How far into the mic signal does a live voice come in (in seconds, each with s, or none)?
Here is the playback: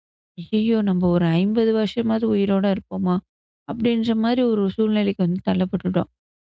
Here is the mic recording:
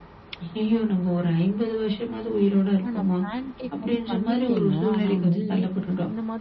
2.8 s